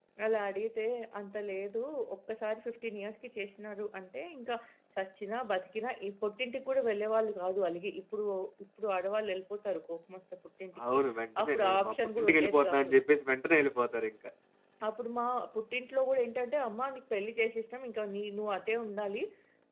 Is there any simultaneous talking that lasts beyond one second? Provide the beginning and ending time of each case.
11.4-12.9

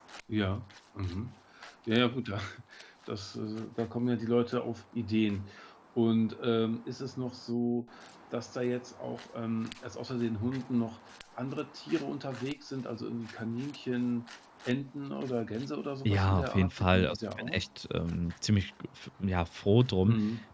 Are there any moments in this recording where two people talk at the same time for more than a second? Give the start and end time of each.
16.1-17.6

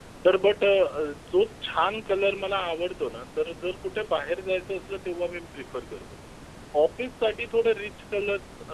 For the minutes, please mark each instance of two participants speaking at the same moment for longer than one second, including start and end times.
none

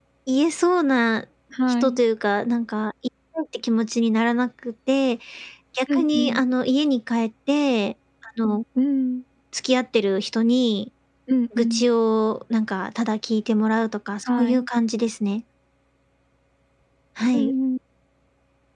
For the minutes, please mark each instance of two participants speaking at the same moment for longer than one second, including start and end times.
none

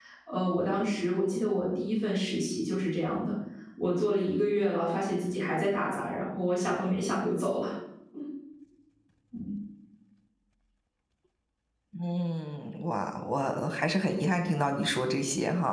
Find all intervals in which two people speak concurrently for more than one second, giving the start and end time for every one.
none

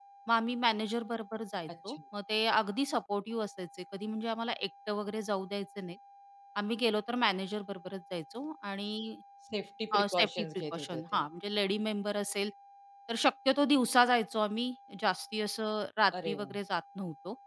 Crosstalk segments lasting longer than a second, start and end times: 10.0-11.2

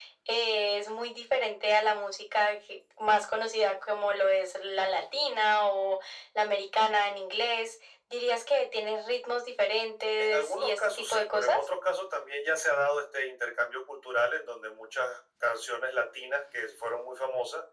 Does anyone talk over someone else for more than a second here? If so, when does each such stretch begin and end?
10.2-11.6

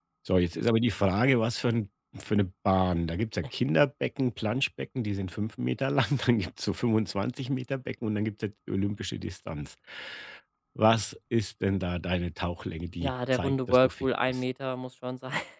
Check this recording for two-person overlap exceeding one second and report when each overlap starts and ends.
13.0-14.4

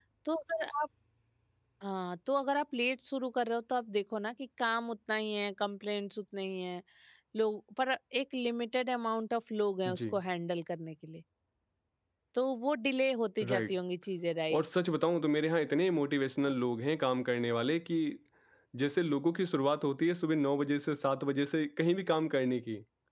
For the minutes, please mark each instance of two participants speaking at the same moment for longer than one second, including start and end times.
none

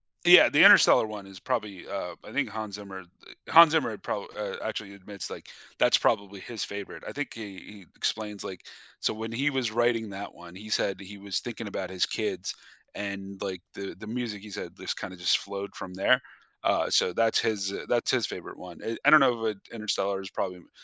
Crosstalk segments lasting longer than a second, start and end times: none

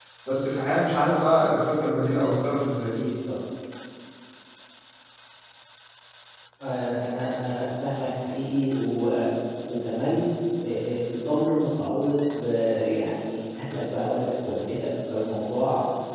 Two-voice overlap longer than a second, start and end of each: none

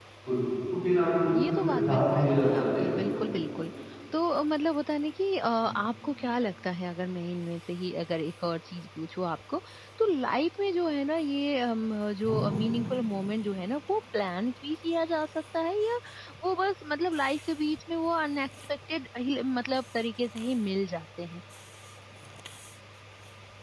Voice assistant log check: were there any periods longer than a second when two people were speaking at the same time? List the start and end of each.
1.5-3.0

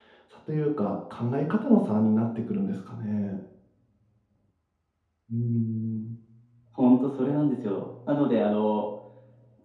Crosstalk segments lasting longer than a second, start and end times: none

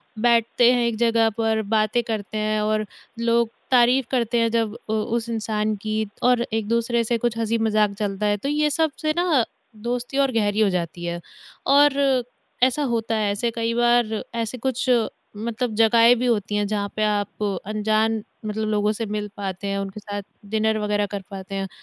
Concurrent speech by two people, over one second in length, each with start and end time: none

